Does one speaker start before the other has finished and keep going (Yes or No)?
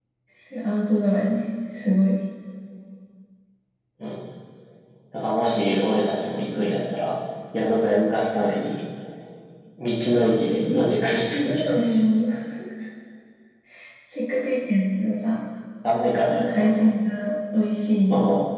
Yes